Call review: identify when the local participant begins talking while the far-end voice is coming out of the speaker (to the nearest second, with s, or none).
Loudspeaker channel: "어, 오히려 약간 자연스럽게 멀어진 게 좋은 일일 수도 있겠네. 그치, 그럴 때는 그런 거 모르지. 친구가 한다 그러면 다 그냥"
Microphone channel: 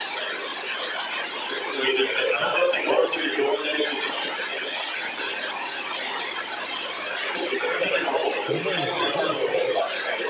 8 s